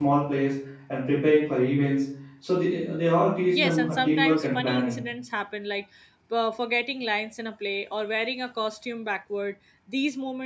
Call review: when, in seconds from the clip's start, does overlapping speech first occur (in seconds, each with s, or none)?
3.5 s